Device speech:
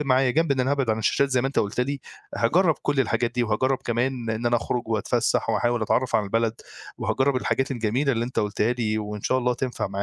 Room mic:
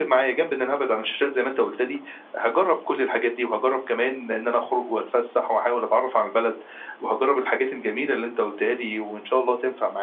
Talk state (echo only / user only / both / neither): echo only